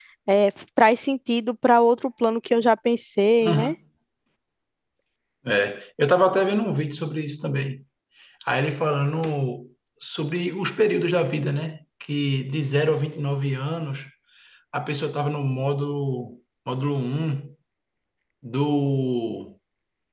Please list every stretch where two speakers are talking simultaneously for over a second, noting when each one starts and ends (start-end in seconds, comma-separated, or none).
none